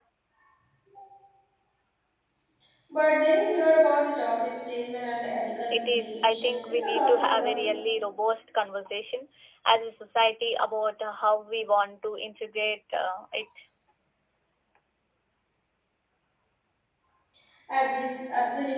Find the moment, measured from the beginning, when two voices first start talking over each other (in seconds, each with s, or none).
5.7 s